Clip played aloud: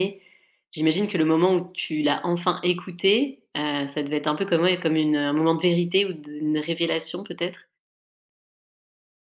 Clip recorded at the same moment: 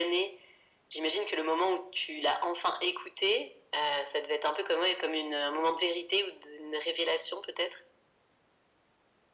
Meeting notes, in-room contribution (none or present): none